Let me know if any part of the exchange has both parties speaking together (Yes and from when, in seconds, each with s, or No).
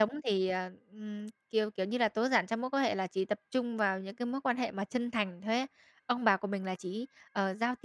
No